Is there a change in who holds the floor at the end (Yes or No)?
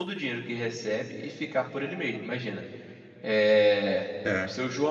No